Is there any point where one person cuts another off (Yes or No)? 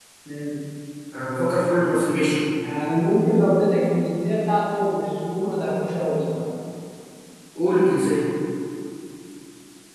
No